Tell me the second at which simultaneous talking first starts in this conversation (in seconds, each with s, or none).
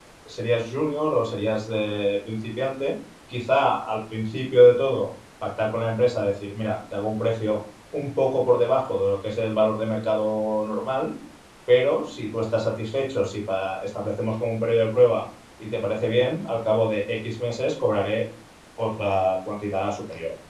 none